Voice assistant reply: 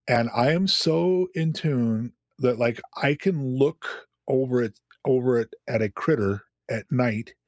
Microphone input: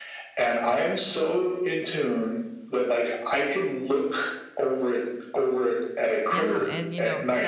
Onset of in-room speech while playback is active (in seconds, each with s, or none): 6.3 s